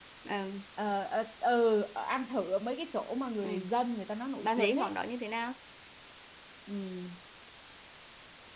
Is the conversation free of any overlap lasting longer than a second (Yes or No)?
Yes